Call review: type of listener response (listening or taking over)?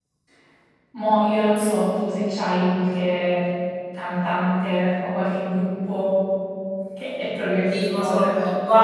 taking over